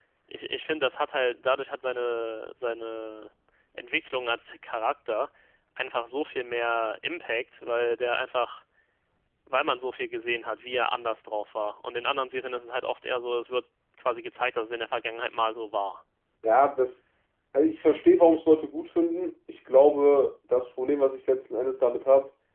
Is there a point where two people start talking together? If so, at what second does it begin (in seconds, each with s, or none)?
none